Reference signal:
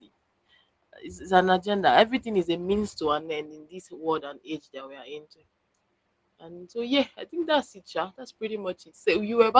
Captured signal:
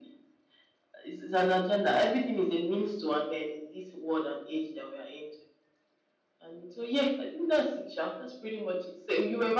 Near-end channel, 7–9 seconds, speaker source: echo only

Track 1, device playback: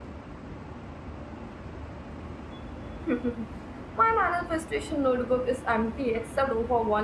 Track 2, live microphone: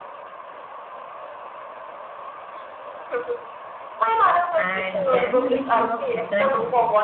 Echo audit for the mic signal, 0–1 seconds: neither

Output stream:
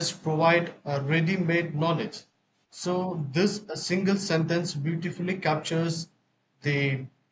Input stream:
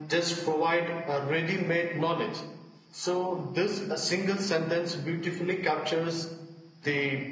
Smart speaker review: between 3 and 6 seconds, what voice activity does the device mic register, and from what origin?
echo only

